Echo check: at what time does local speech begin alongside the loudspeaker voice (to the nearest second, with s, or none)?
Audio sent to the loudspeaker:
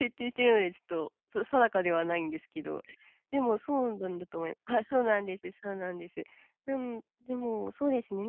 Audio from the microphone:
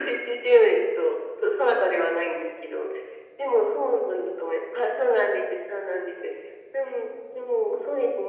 none